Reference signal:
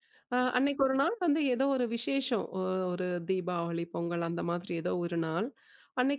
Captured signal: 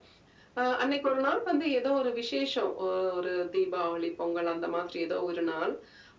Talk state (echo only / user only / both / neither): echo only